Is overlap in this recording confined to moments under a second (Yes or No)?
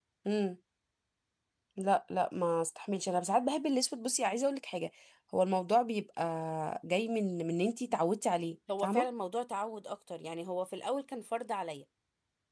Yes